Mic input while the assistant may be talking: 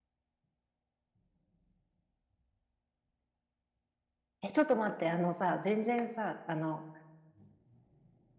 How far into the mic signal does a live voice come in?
4.4 s

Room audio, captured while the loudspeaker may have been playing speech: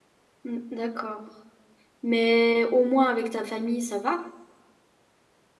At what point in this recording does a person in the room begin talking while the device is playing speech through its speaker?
0.4 s

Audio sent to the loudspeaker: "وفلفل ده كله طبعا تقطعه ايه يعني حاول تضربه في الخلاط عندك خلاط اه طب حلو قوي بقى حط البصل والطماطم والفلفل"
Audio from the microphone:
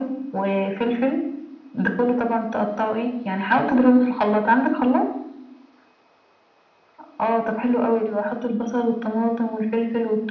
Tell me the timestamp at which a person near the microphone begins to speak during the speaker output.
none

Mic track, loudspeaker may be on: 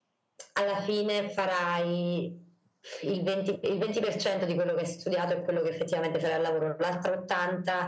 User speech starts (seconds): none

